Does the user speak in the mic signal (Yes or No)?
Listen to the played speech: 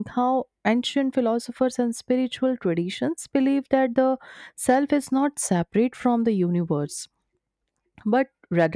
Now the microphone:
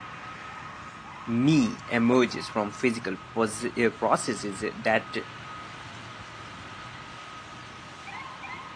Yes